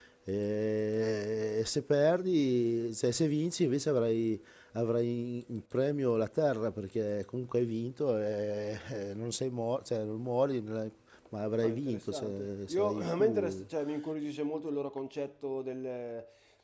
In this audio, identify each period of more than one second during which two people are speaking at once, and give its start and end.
11.6-13.6

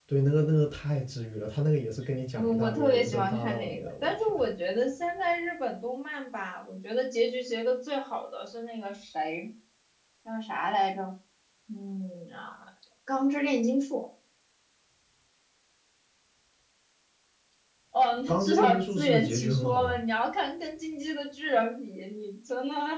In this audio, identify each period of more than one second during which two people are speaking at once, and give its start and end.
2.3-4.3, 18.3-20.0

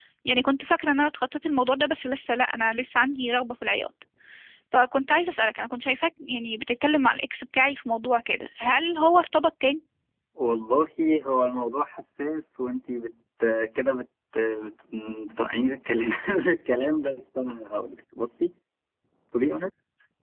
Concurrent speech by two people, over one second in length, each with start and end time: none

